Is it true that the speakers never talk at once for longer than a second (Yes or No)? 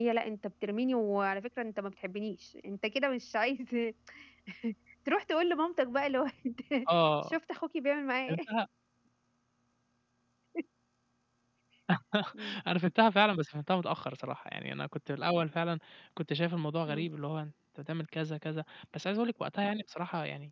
Yes